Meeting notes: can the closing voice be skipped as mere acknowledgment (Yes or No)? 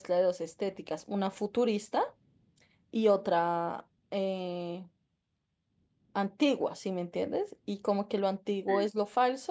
Yes